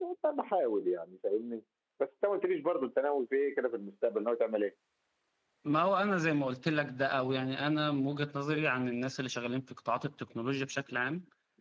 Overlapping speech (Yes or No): No